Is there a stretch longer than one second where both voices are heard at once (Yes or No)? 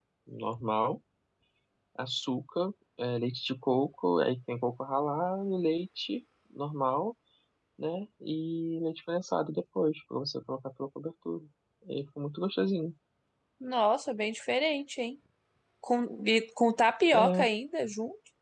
No